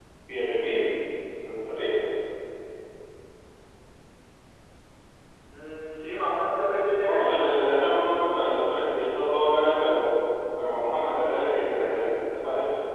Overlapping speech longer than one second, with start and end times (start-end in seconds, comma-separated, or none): none